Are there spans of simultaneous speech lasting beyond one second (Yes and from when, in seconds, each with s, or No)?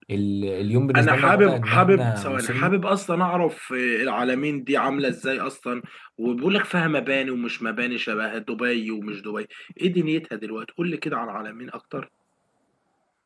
Yes, from 0.9 s